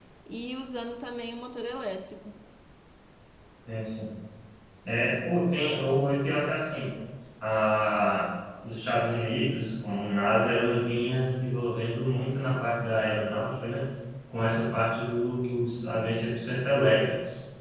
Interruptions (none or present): none